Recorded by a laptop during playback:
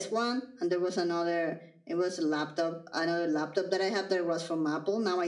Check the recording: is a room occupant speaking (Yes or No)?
No